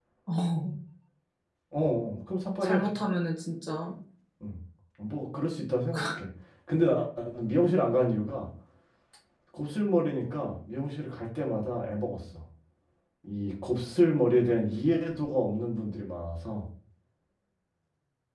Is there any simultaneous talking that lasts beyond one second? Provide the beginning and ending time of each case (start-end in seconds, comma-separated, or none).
none